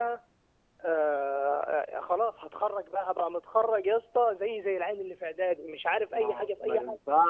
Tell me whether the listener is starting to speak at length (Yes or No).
Yes